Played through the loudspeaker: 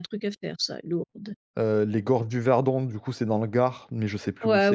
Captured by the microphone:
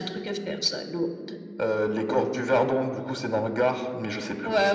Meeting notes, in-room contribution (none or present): none